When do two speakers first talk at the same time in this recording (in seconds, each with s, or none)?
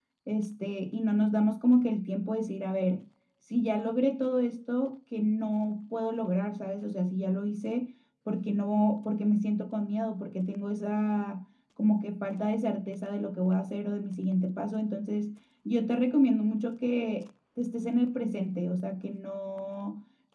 none